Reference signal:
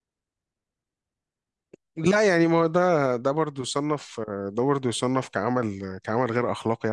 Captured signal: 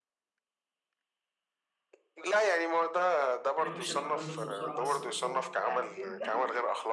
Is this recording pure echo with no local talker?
No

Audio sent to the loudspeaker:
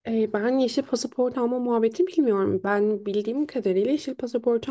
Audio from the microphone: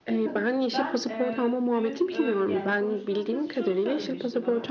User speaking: Yes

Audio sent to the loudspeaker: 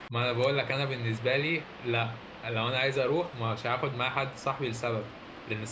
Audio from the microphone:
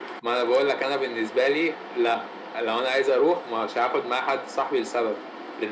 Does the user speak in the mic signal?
No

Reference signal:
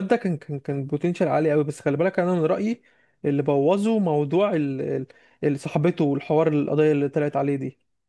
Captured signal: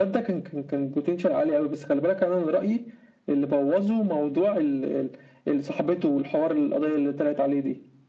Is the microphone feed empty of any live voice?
Yes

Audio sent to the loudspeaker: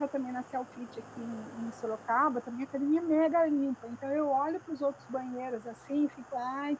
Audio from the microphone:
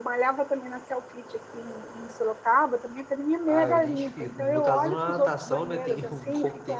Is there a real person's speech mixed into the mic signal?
Yes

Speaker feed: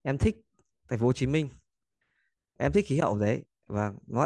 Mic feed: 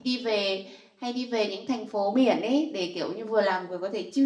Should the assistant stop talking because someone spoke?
Yes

